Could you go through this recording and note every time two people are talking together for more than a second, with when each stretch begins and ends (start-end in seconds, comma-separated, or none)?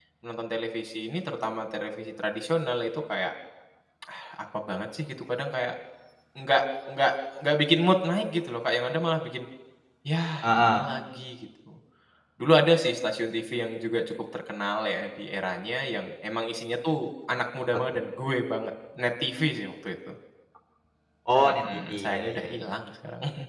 21.3-22.6